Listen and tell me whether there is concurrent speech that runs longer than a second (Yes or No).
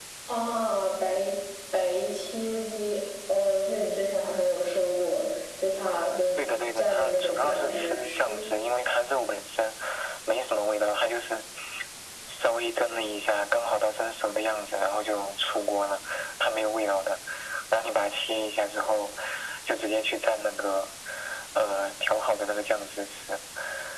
Yes